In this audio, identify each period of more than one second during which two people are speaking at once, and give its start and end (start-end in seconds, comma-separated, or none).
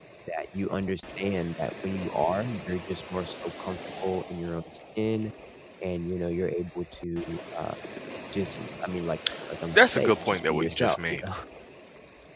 9.8-11.3